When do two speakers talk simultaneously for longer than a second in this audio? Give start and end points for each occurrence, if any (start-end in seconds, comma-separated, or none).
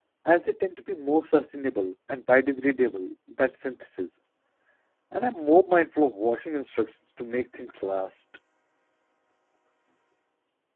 none